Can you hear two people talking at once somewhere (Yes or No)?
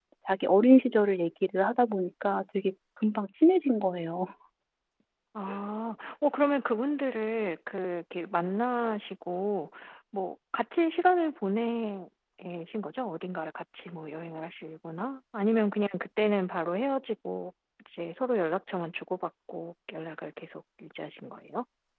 No